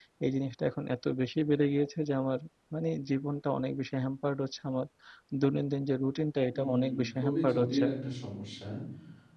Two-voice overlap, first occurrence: 7 s

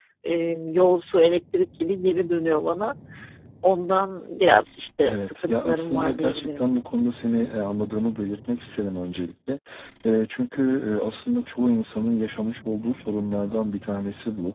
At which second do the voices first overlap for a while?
5 s

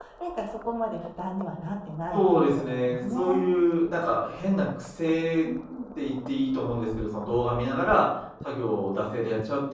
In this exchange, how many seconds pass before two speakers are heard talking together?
2 s

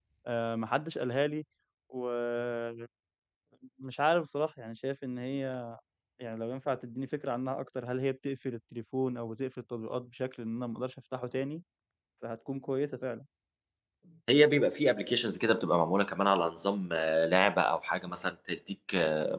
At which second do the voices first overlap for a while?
none

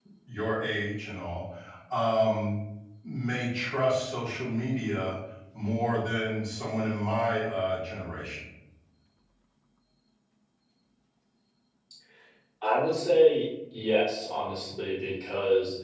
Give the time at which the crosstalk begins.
none

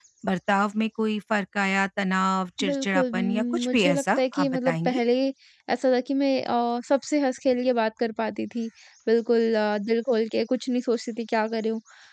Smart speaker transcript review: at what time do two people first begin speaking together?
3 s

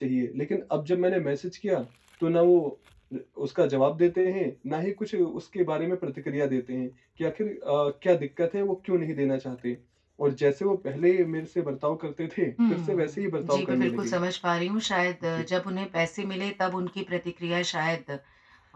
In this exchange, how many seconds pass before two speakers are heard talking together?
13 s

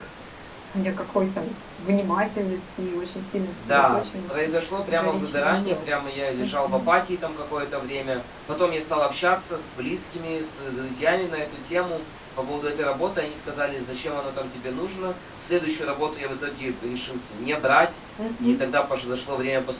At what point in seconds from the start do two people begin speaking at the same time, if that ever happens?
4 s

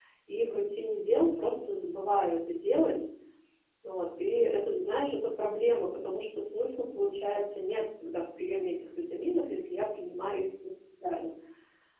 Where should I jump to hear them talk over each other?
none

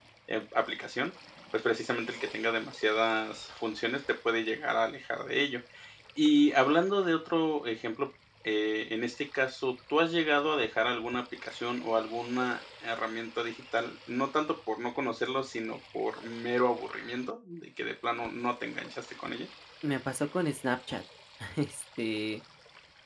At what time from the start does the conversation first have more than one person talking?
none

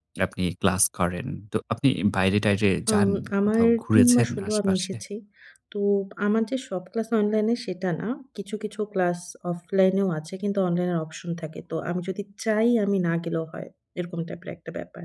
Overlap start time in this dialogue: 3 s

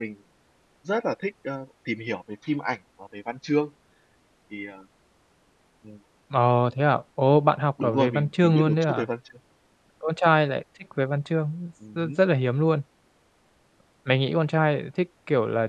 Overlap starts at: 8 s

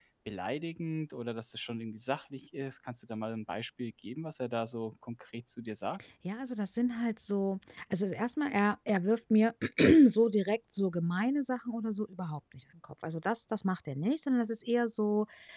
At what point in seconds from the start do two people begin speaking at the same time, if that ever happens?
none

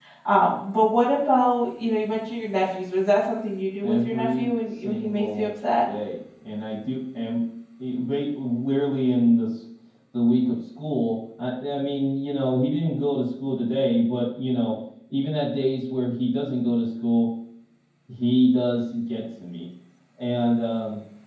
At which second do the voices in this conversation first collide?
4 s

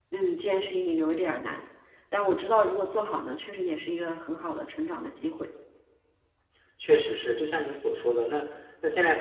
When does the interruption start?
none

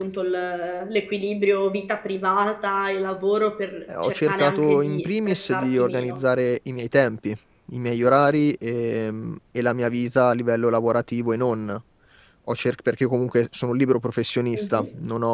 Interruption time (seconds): 4 s

